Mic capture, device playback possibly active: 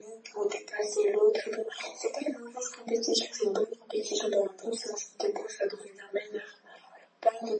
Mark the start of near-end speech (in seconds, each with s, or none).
none